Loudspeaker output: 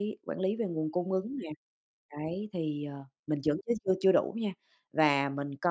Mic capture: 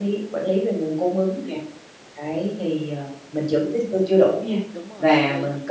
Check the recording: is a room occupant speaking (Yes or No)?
Yes